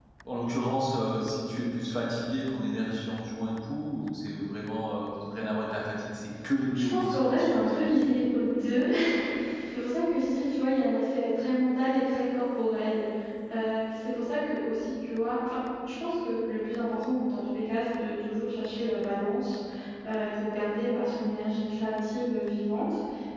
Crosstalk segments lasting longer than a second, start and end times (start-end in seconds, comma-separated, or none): 6.8-8.2